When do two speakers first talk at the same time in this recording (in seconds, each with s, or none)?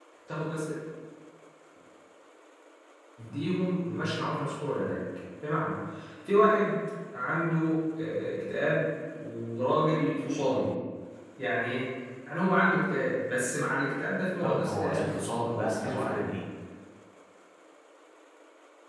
14.4 s